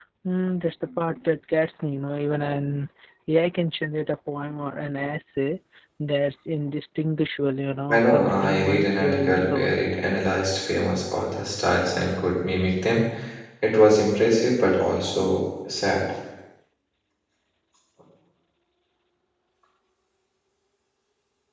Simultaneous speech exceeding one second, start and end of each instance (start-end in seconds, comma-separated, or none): 7.9-9.7